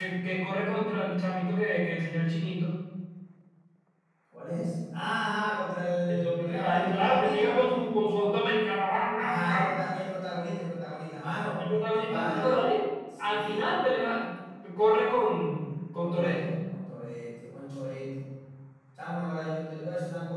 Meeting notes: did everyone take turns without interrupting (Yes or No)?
No